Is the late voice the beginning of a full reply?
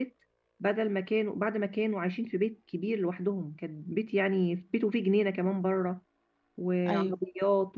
No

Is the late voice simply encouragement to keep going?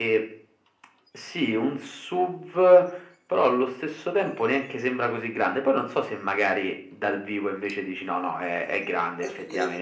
No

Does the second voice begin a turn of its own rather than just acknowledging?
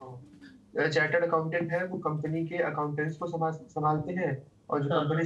No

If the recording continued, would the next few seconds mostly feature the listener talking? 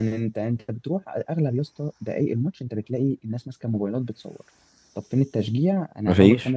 No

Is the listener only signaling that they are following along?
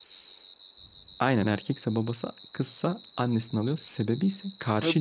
No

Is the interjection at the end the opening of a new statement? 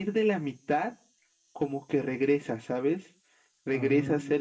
No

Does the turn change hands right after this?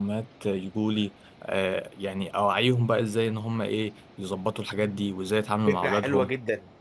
Yes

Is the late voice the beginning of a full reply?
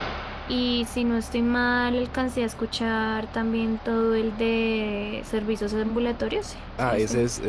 Yes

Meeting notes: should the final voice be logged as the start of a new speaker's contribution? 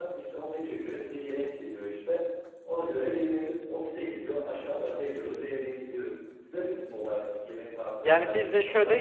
Yes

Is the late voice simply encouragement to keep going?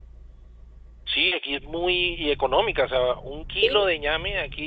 Yes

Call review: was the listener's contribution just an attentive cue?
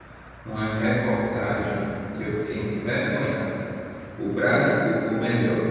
Yes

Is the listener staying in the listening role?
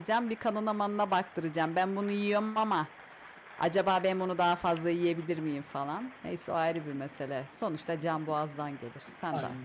No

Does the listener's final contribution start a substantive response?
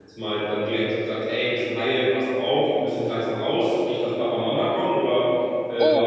Yes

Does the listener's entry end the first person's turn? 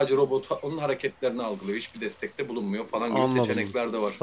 Yes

